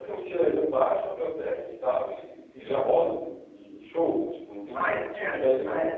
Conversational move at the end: taking over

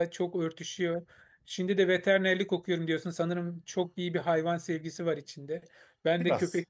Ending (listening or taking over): listening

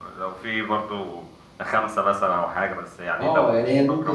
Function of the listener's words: taking over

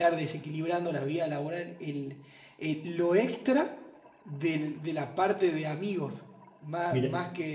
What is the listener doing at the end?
listening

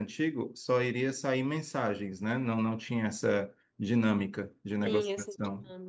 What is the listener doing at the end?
taking over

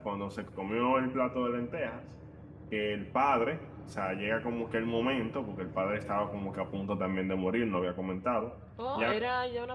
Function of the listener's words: taking over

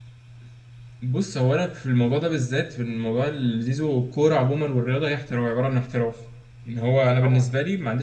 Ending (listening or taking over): listening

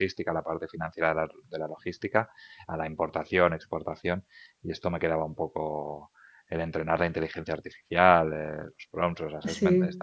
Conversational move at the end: listening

